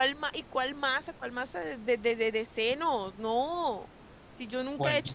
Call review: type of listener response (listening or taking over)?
listening